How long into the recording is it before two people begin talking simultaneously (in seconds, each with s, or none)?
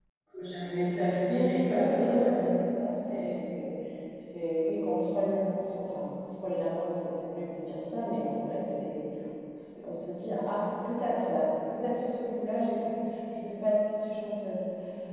0.7 s